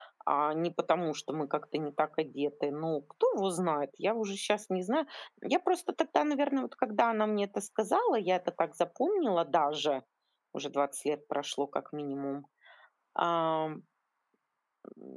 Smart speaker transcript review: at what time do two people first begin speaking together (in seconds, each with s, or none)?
none